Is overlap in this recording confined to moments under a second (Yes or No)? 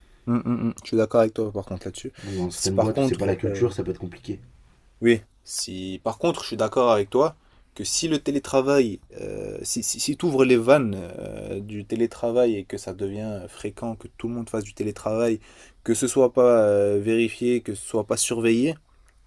No